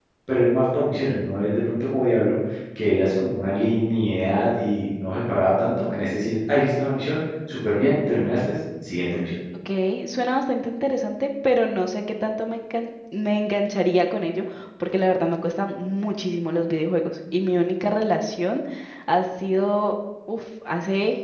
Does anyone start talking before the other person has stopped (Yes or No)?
No